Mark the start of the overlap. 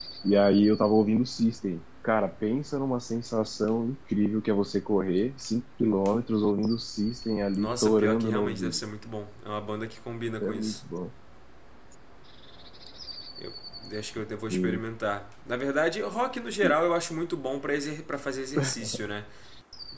7.6 s

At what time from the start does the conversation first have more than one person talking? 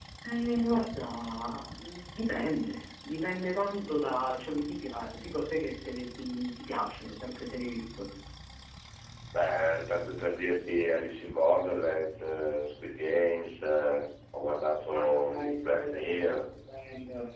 14.9 s

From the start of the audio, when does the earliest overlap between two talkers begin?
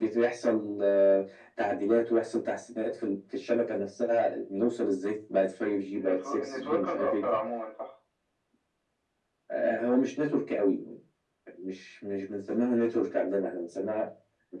6.0 s

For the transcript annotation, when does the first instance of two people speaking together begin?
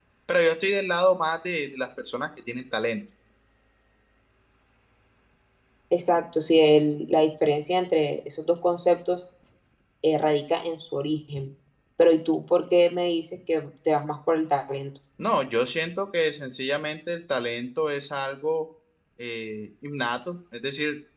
none

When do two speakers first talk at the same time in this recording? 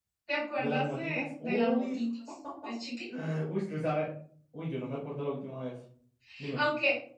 0.6 s

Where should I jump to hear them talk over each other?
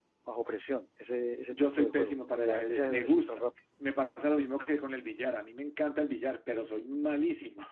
1.5 s

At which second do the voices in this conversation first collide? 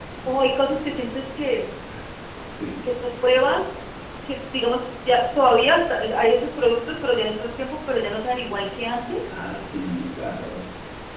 none

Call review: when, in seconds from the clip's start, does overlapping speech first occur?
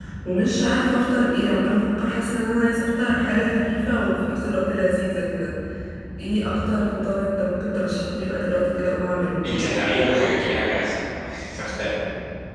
none

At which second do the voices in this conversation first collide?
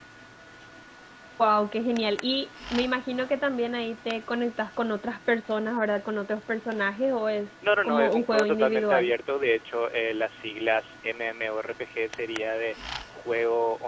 7.6 s

